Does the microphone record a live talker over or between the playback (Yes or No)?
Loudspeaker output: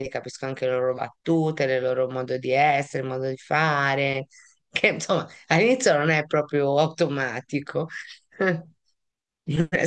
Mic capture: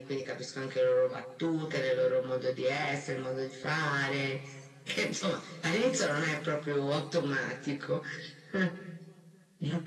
No